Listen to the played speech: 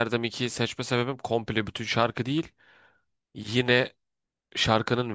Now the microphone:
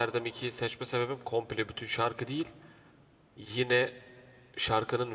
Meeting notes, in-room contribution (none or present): none